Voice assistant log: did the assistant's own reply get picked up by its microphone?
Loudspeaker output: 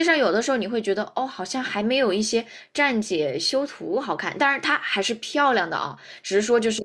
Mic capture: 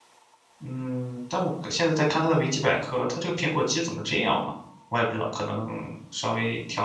No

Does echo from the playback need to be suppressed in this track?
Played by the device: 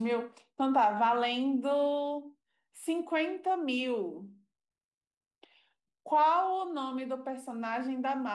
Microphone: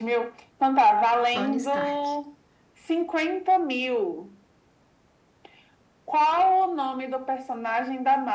Yes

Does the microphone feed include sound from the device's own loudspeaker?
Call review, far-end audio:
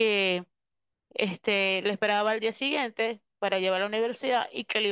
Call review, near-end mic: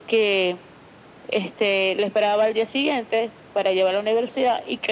Yes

